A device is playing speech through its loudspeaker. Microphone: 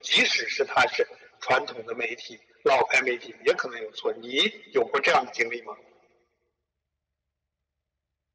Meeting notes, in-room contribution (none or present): none